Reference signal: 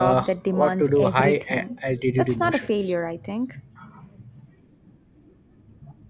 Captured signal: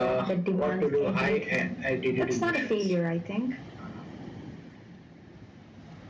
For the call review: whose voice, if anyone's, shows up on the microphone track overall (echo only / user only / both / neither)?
echo only